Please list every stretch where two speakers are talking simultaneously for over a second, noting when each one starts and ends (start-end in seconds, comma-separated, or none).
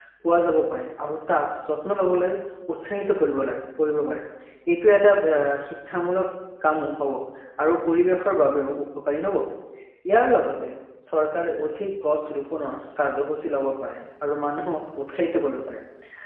none